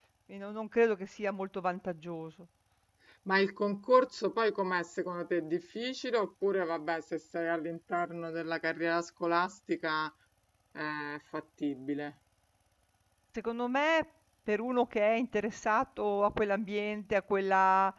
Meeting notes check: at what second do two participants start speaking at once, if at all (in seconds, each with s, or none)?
none